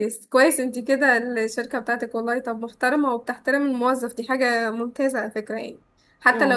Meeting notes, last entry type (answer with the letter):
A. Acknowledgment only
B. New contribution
A